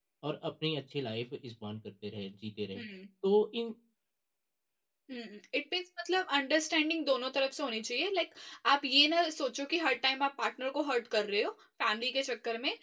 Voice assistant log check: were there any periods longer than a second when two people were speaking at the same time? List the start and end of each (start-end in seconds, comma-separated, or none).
none